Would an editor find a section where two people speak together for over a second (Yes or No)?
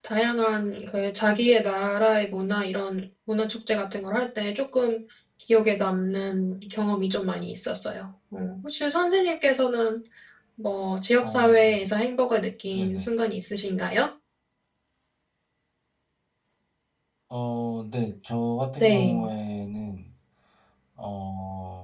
No